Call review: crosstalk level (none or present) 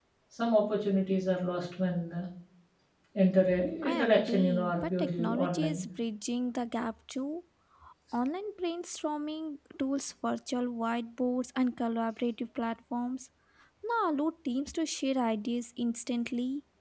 present